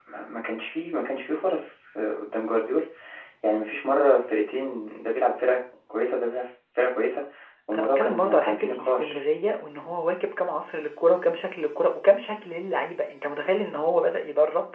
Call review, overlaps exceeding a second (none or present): present